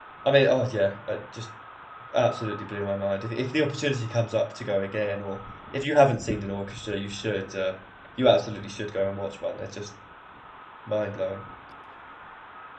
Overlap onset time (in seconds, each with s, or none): none